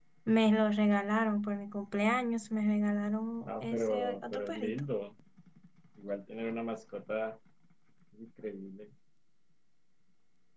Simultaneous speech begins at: 3.5 s

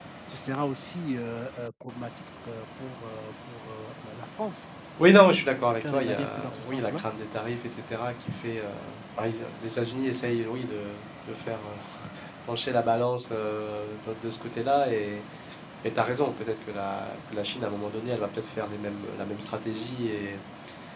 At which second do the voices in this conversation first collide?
5.8 s

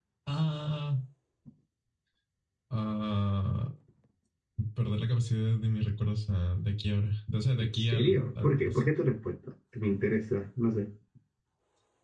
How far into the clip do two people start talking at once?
7.6 s

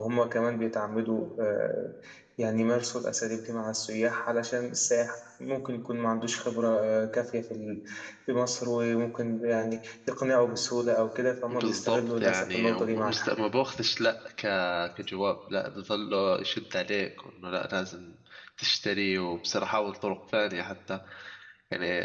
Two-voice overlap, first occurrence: 11.5 s

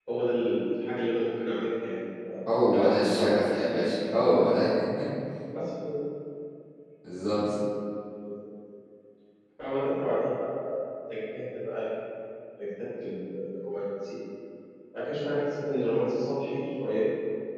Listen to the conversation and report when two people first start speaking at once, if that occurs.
2.5 s

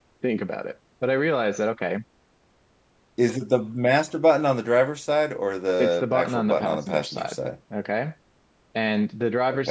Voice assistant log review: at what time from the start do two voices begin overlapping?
5.8 s

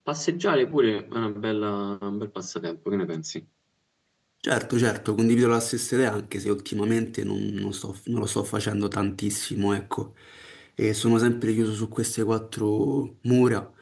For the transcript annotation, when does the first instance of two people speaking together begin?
none

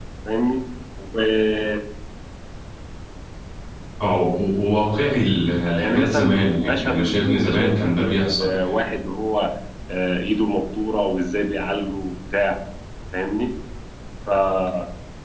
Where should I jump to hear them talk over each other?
5.7 s

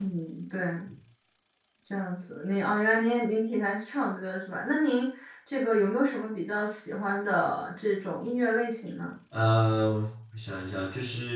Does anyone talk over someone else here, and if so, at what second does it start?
none

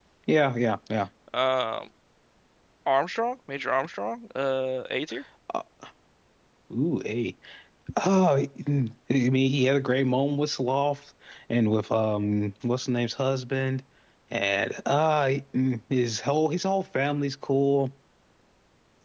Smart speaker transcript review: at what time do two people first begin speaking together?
none

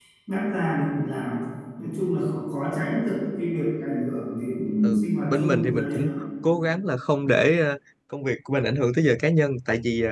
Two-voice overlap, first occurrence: 4.8 s

